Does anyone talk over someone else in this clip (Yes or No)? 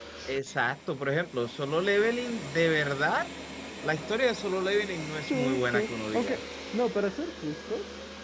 Yes